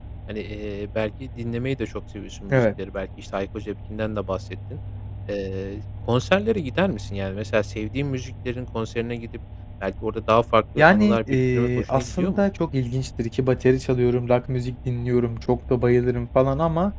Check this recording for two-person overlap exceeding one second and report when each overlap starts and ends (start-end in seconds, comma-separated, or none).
10.8-12.4